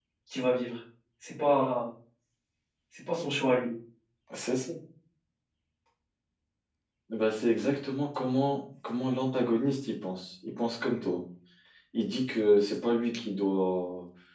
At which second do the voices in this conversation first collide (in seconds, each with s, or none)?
none